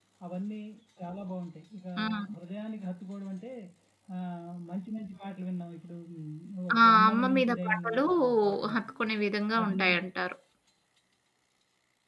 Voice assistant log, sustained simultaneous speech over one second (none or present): present